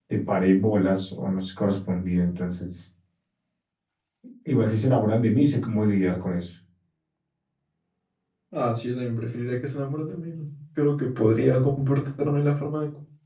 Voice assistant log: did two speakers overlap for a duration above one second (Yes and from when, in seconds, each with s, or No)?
No